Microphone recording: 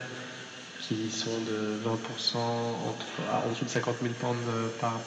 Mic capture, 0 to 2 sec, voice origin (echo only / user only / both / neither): echo only